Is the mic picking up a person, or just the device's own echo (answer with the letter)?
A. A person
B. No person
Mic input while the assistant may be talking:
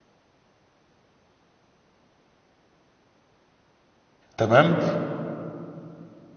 A